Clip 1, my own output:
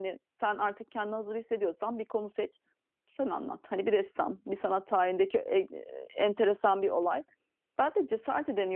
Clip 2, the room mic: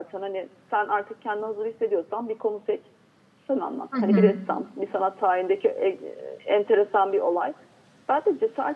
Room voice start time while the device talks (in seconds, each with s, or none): 3.9 s